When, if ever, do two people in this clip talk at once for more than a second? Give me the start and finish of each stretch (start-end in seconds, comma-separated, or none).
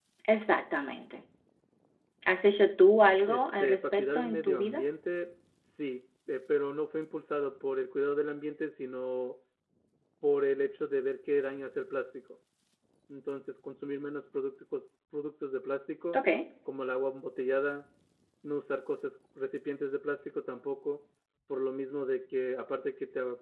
3.3-4.8